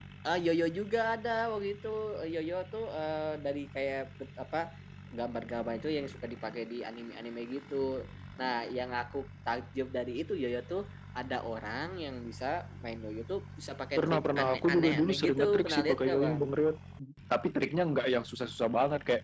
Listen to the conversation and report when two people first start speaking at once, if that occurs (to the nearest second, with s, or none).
14 s